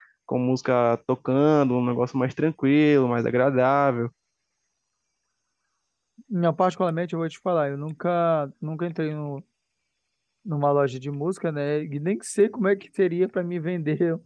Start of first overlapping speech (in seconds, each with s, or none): none